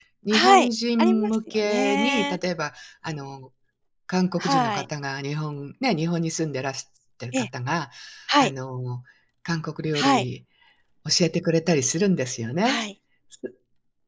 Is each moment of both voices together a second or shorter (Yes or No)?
No